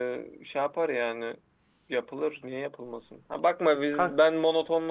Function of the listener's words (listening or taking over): listening